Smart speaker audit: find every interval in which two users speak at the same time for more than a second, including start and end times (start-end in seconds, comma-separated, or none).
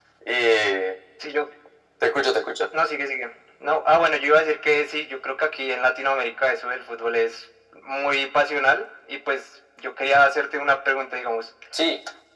none